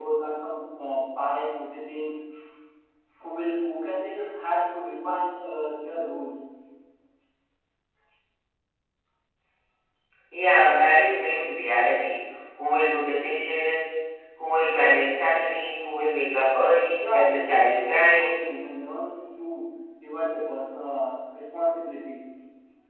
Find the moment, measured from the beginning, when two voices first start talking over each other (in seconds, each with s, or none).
17.0 s